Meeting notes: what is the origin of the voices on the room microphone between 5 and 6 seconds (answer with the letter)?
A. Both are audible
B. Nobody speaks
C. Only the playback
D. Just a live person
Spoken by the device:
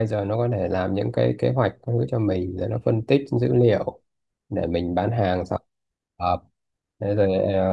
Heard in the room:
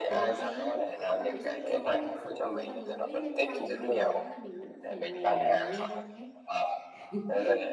A